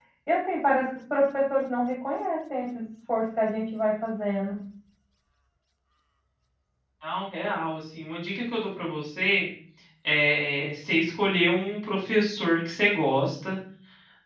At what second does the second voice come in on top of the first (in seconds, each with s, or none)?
none